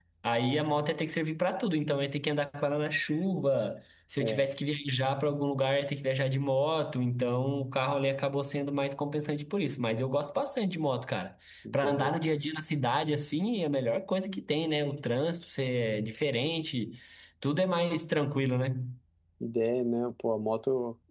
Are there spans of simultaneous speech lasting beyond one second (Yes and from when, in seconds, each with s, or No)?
No